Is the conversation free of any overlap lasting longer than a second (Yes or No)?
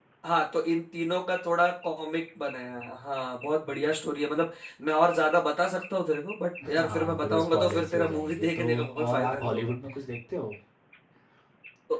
No